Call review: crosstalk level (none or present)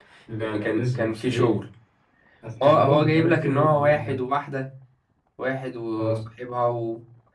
present